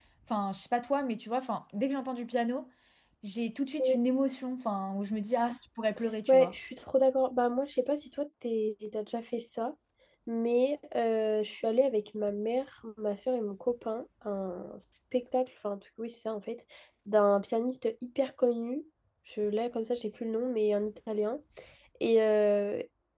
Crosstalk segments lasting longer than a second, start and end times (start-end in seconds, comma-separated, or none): none